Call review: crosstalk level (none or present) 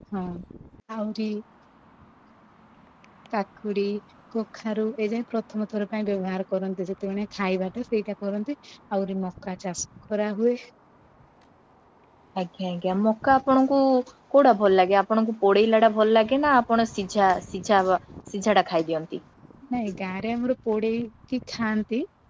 none